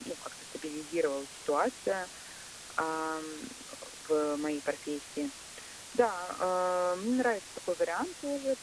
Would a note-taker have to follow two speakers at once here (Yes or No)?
No